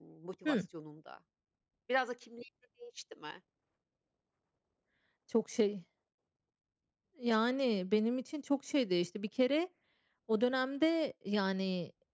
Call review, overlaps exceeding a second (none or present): none